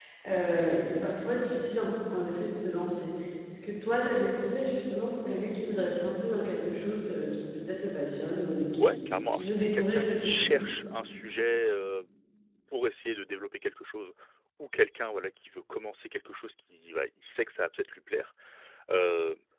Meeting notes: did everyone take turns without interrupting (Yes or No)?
No